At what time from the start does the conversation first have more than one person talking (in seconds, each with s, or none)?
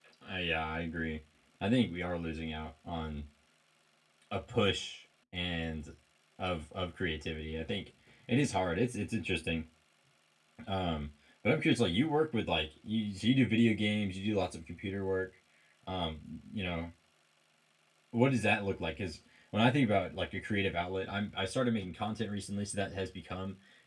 none